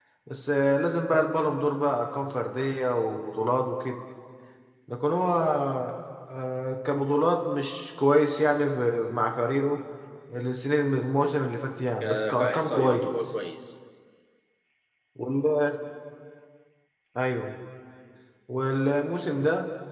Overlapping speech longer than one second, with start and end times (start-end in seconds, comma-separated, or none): 12.0-13.2